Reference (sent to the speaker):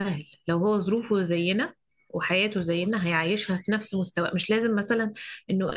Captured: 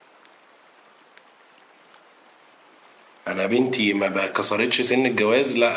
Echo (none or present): none